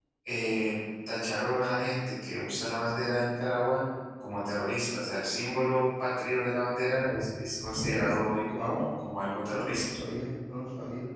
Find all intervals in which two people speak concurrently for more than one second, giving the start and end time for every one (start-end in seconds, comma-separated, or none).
none